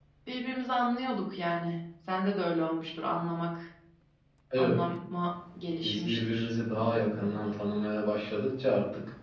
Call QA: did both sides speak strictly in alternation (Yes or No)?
No